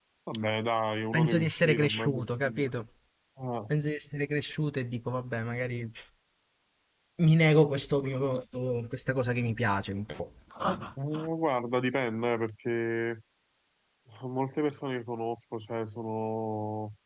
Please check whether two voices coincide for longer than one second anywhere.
Yes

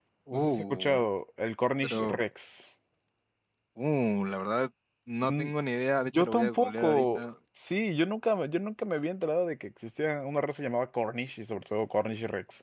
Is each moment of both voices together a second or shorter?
No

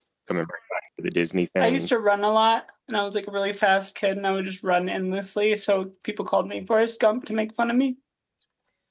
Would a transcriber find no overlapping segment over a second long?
Yes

